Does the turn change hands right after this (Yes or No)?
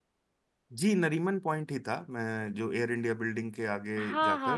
Yes